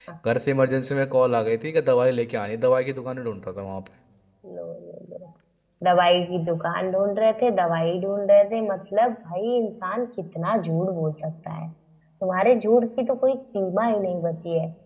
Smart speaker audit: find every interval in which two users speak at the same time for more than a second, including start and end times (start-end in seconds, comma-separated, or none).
none